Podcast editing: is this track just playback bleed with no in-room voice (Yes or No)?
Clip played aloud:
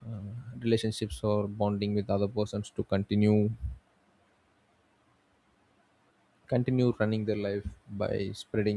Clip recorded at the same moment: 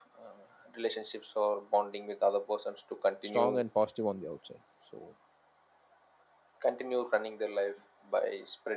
No